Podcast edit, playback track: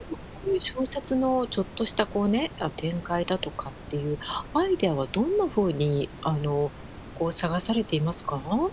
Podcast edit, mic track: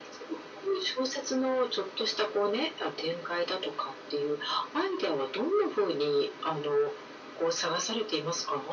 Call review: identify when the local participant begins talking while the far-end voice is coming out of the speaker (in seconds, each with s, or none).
none